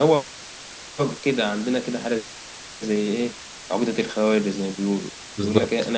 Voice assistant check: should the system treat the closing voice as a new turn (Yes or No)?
No